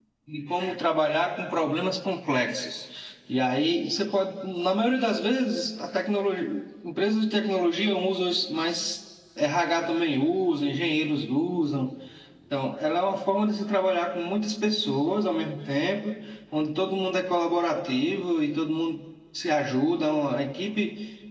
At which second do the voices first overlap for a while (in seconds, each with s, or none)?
none